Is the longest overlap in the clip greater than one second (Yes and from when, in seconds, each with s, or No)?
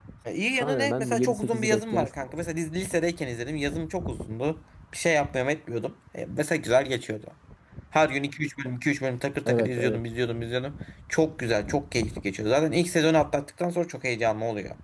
Yes, from 0.6 s